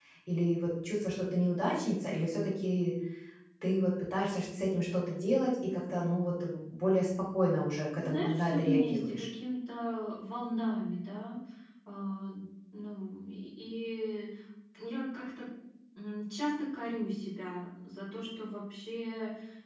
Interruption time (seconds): 8 s

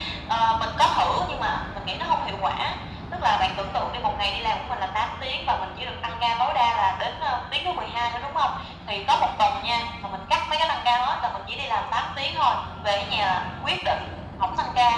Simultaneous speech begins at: none

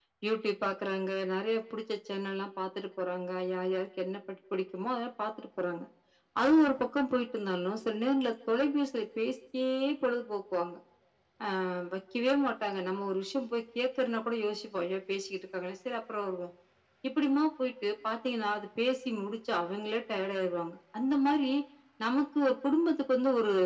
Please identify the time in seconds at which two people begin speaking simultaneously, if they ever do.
none

